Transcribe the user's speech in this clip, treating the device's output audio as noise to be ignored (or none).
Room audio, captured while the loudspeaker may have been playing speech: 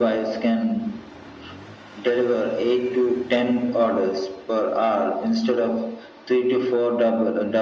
none